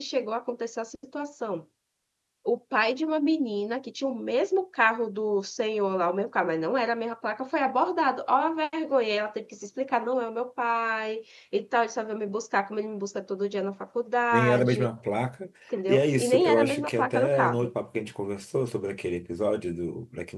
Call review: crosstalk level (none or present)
present